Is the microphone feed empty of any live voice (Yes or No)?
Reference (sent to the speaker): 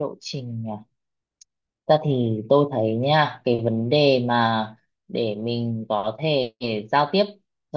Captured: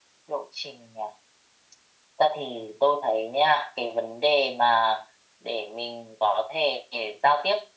Yes